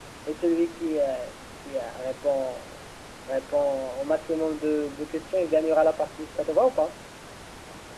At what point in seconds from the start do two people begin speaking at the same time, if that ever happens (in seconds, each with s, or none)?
none